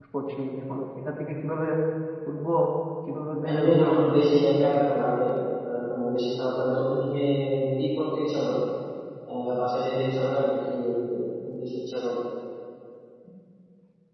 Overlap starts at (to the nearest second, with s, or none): 4 s